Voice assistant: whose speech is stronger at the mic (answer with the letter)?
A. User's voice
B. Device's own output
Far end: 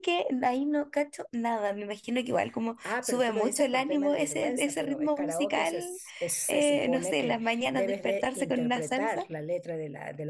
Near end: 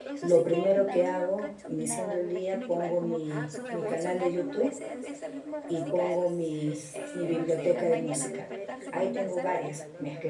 A